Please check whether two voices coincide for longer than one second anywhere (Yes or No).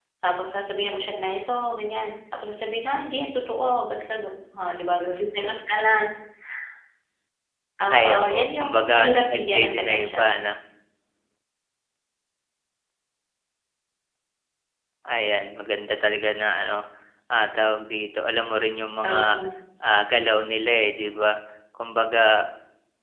Yes